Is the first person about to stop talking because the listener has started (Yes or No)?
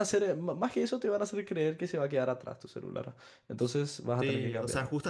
Yes